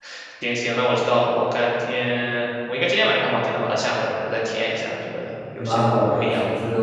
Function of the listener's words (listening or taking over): taking over